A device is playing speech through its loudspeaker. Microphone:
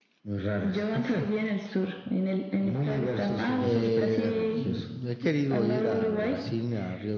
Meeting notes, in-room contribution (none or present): present